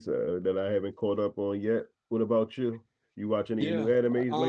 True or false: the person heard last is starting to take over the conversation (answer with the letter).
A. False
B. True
B